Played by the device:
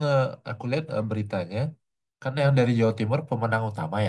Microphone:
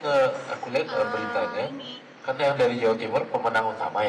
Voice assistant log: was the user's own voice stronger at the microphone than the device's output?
No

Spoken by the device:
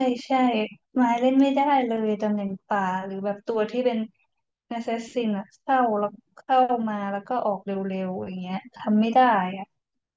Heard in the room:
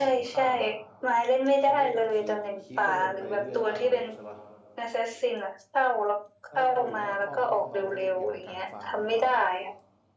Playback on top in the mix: Yes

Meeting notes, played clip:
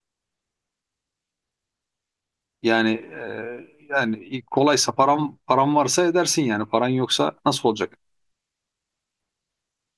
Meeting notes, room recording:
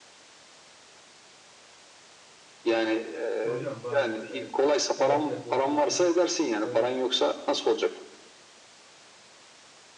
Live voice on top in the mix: No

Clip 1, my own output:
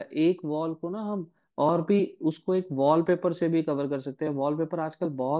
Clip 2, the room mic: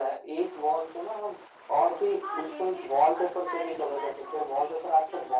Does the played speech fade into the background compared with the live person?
No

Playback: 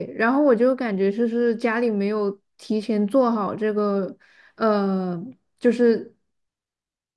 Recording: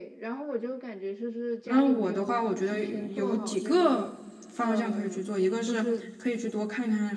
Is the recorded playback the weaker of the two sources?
Yes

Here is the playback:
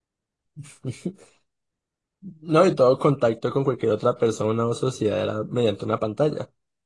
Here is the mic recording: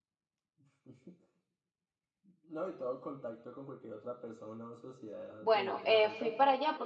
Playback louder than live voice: No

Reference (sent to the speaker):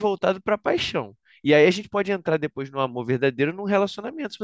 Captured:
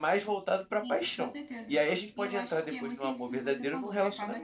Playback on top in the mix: Yes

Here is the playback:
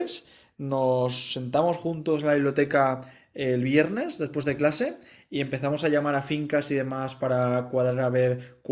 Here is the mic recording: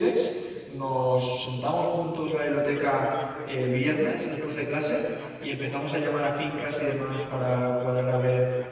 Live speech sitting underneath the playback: Yes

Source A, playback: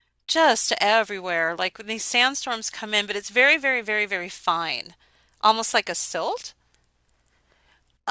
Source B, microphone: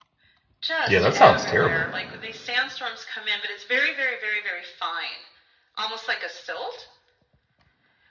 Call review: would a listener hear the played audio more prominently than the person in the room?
No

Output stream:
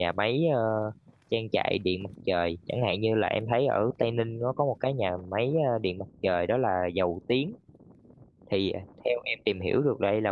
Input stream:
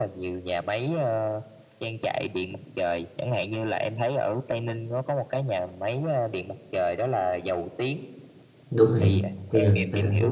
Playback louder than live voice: No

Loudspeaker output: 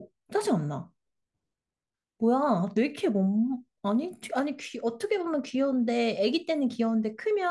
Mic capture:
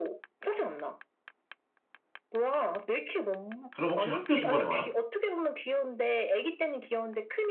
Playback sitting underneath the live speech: Yes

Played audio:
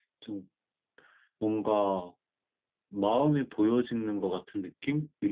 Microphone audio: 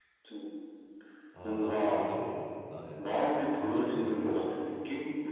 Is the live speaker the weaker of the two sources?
Yes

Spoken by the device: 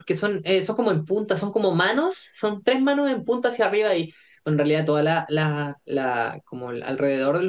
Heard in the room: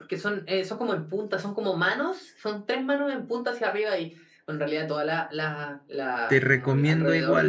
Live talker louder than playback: Yes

